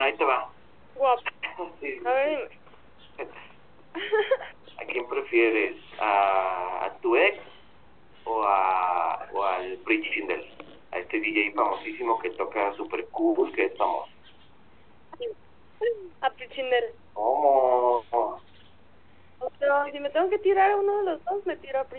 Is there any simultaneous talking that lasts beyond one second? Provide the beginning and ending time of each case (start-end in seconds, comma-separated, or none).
none